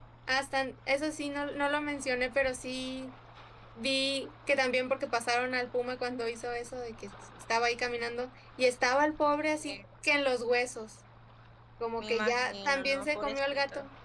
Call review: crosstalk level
present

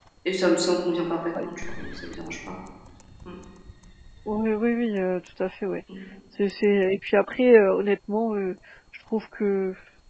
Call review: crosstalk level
none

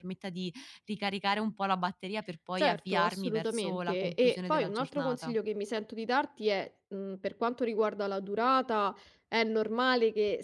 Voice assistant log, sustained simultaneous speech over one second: present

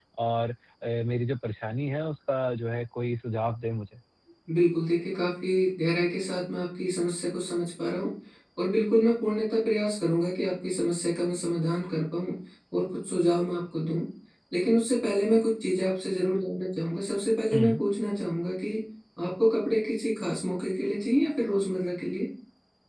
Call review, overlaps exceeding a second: none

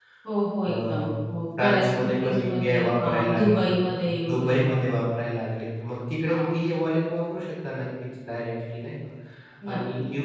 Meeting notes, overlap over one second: present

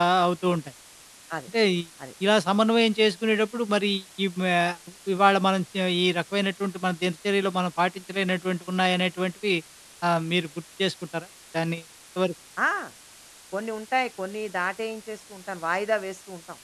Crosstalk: none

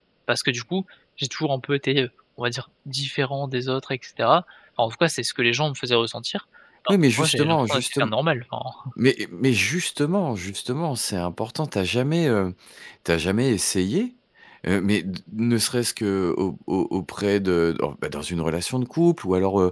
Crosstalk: present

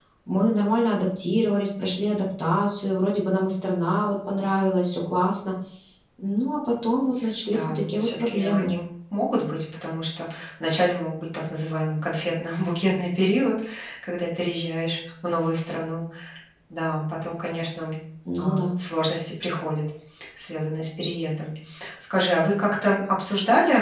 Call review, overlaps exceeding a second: present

